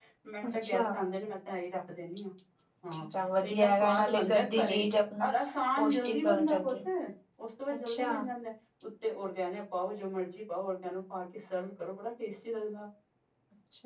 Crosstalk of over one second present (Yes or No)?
Yes